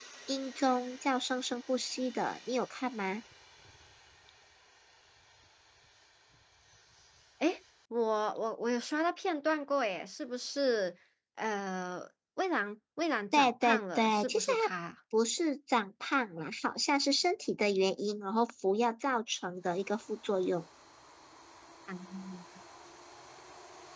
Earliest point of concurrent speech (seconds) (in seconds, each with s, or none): 13.3 s